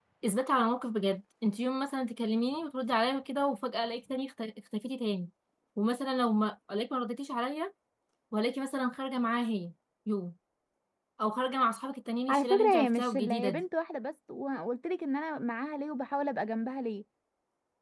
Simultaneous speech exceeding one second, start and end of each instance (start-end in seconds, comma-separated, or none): 12.3-13.6